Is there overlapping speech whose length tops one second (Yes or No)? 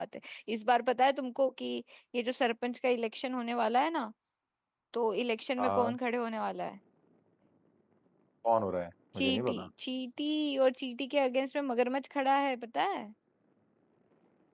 No